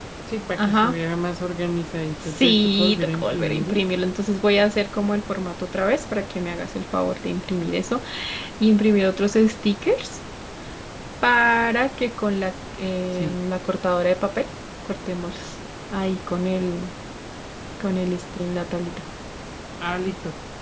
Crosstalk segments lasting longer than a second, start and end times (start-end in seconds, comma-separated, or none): 2.2-3.8